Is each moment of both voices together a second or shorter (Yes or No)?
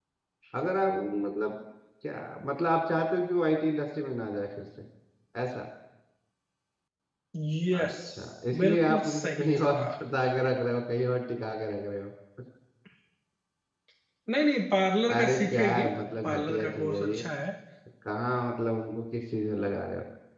No